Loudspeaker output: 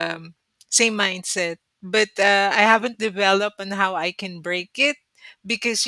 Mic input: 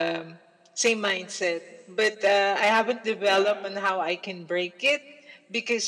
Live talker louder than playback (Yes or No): No